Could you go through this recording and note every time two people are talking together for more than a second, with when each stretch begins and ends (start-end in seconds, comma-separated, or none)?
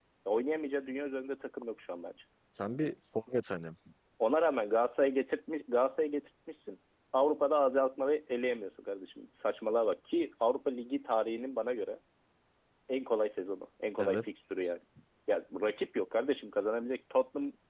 none